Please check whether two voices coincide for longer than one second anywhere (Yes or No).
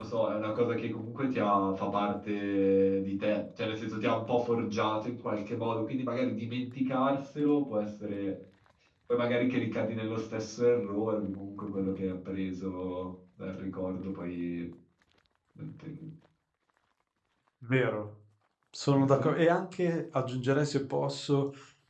No